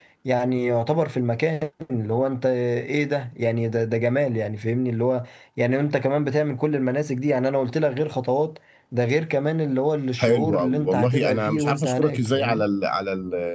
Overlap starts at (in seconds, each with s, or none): 10.2 s